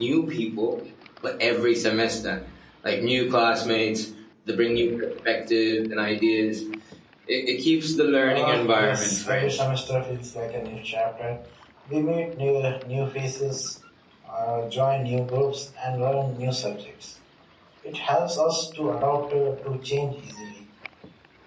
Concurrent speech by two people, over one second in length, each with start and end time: 8.2-9.6

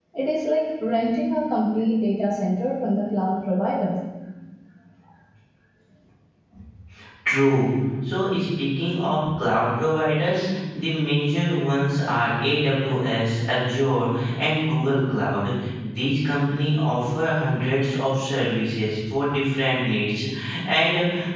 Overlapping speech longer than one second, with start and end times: none

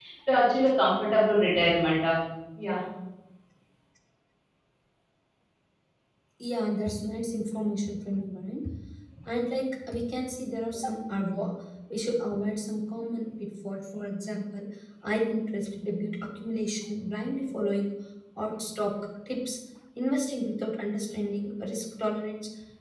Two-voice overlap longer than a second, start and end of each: none

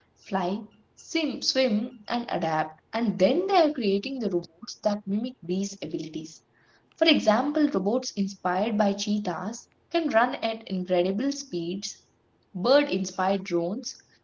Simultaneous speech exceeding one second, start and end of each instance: none

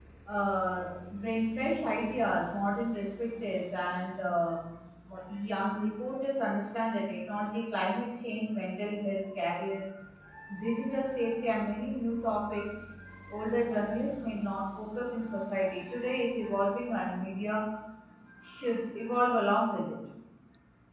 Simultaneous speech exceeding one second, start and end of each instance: none

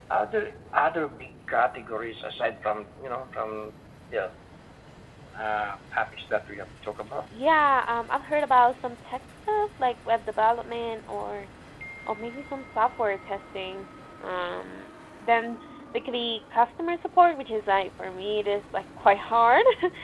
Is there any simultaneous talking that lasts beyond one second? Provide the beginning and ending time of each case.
none

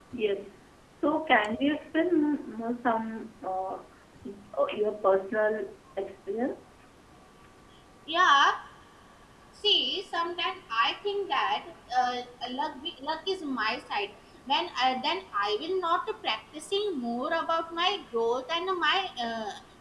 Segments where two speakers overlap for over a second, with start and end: none

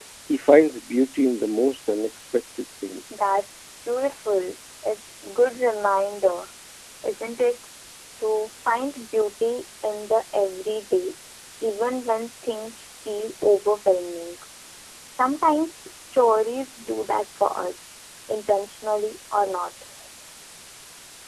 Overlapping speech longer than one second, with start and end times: none

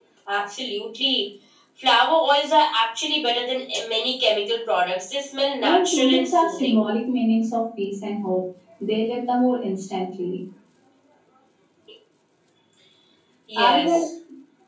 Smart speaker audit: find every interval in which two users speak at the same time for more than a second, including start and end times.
5.6-6.8

